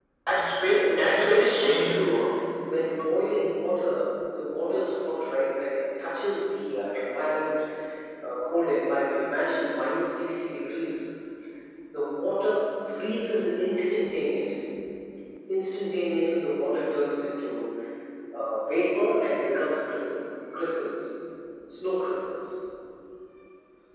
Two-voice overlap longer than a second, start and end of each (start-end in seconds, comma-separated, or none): 0.6-2.3